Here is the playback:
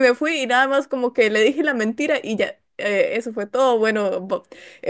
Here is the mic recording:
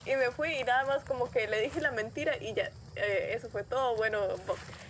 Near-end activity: none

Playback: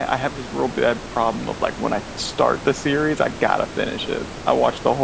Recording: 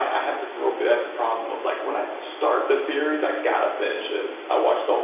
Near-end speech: none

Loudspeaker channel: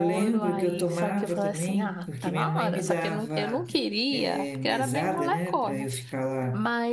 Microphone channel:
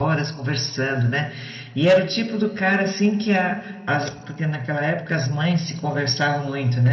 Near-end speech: present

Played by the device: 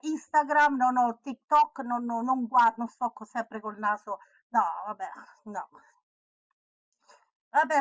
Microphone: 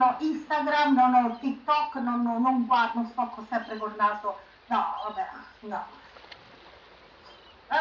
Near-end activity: none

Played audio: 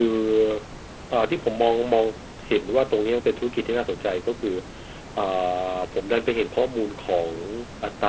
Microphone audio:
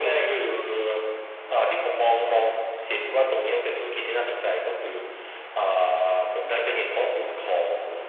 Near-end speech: none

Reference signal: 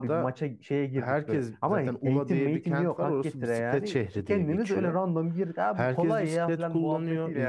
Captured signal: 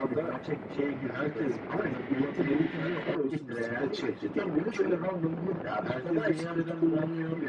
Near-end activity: none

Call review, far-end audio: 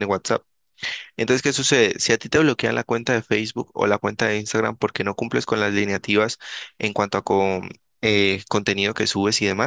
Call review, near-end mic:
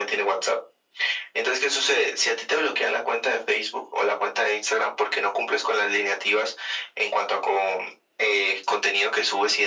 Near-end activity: none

